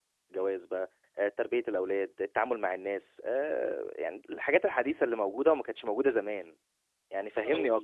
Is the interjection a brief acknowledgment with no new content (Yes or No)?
No